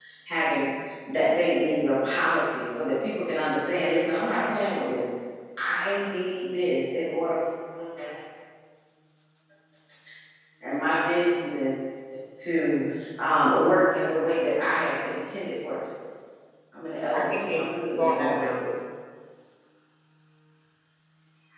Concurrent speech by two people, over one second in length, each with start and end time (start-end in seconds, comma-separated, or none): 17.1-18.6